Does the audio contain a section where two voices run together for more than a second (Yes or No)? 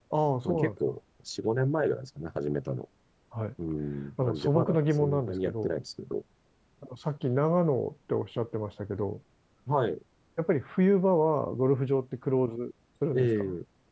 Yes